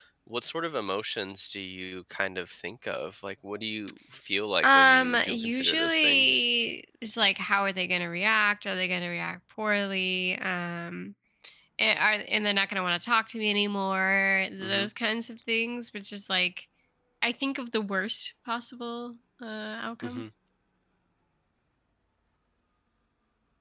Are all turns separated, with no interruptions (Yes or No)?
No